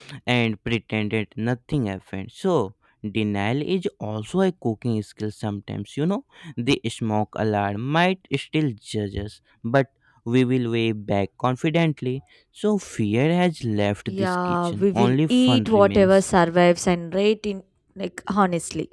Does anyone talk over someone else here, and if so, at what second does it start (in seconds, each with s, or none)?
14.1 s